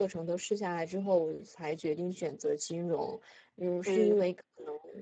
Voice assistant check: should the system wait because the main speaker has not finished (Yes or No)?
Yes